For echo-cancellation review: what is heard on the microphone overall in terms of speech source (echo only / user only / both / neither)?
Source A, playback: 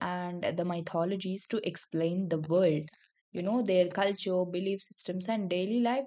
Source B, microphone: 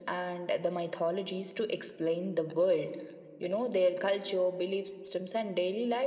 echo only